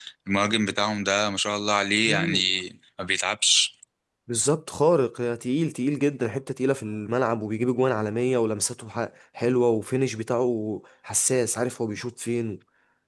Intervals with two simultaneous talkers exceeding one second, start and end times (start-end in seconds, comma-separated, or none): none